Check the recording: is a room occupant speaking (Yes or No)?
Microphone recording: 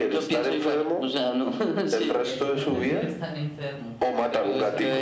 Yes